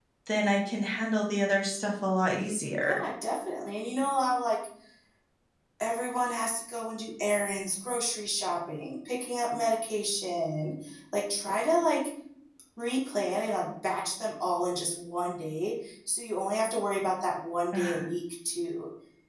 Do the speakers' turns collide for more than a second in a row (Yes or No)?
No